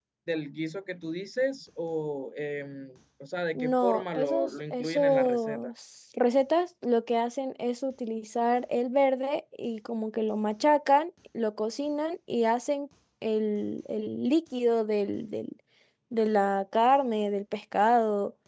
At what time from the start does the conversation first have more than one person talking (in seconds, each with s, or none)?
3.5 s